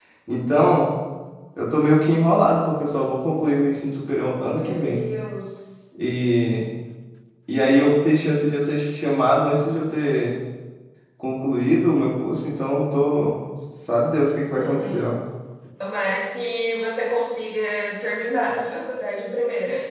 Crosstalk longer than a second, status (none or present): none